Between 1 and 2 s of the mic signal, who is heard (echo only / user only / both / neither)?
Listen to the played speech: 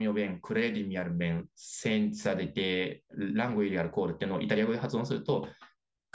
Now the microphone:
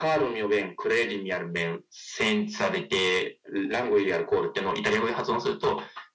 echo only